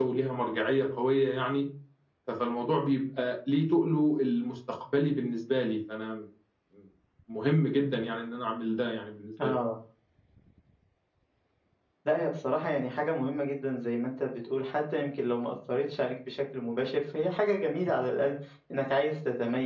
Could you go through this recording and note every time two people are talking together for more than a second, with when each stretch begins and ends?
none

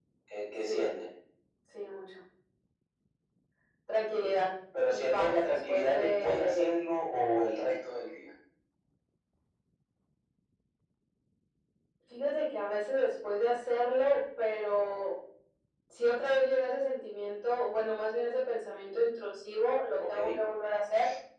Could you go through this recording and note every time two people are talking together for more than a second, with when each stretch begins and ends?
4.9-6.8

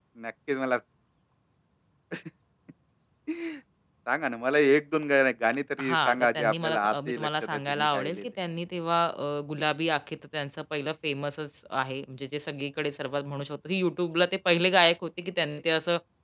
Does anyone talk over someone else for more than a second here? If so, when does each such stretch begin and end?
5.8-8.2

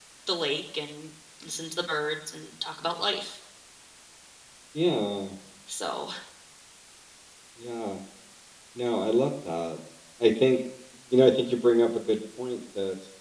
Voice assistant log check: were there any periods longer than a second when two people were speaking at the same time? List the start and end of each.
none

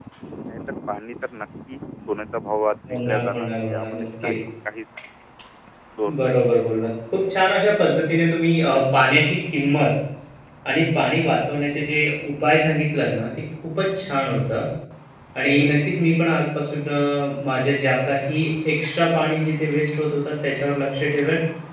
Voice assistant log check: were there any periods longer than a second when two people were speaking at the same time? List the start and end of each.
3.1-4.3

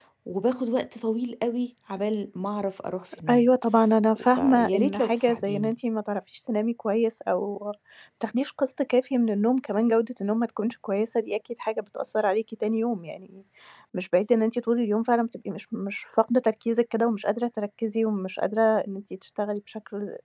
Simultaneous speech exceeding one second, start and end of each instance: 4.4-5.7

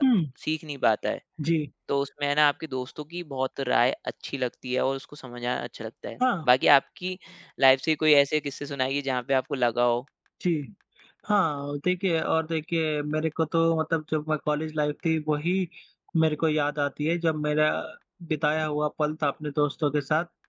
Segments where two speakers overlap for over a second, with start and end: none

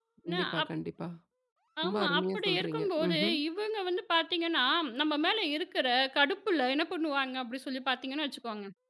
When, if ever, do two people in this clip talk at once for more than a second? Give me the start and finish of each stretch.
1.8-3.4

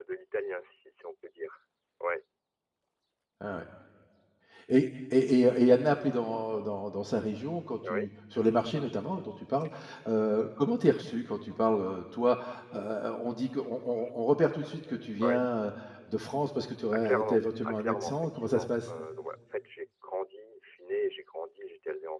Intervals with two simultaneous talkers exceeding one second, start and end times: 17.1-18.7

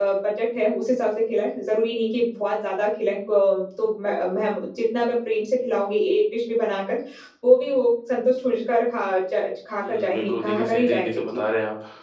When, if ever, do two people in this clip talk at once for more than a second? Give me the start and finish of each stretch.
9.9-11.4

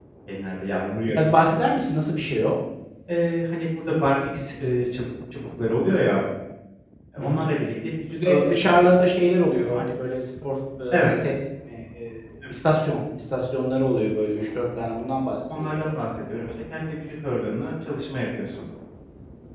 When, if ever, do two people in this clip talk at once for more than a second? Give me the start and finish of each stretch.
none

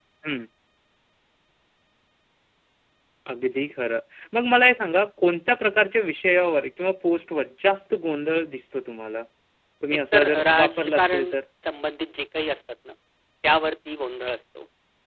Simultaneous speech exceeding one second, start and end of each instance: 10.1-11.3

